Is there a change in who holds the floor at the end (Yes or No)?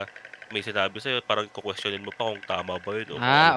Yes